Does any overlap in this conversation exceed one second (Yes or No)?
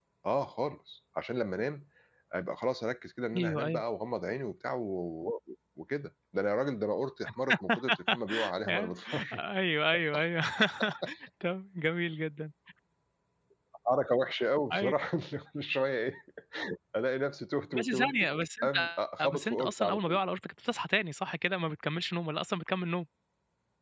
Yes